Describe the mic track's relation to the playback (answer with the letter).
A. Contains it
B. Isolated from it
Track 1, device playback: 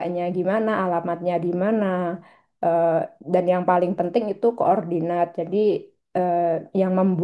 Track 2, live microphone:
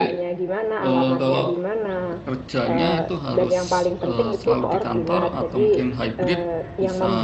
A